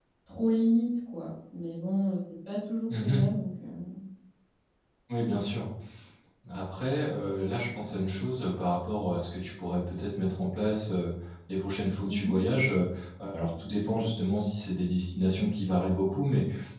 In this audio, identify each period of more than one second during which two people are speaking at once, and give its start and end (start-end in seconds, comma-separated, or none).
none